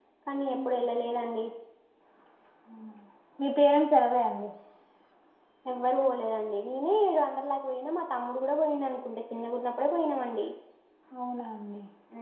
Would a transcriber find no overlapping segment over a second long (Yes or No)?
Yes